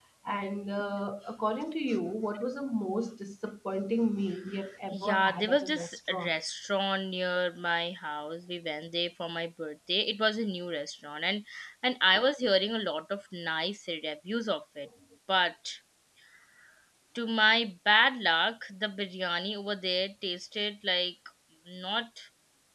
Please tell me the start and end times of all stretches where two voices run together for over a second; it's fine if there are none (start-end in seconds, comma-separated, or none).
4.9-6.4